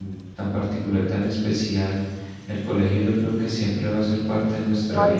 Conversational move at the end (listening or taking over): taking over